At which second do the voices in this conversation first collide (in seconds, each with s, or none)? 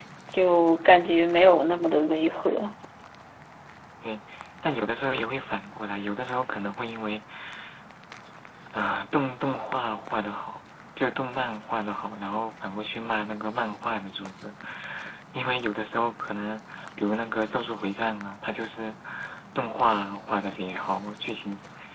none